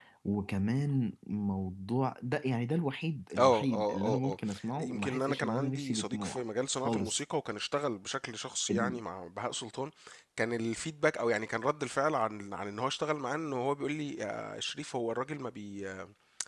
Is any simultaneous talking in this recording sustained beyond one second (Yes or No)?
Yes